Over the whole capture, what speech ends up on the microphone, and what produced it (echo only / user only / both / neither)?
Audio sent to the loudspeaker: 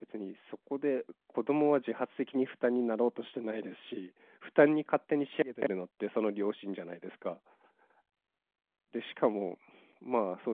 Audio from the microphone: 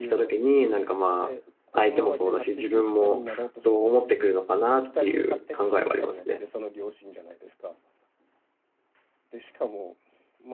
both